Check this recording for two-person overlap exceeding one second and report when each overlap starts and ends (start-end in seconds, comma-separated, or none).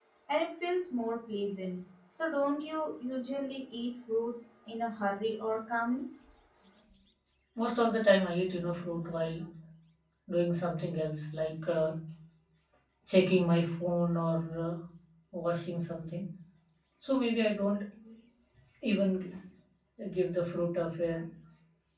none